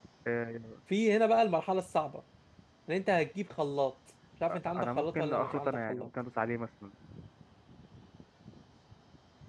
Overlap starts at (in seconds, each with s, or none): 4.5 s